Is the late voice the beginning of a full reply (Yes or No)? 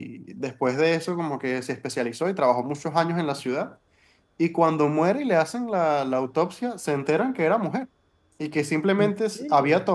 No